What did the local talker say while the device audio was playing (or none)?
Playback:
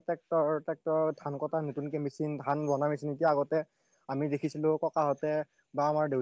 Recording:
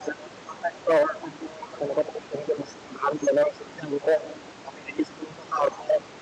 none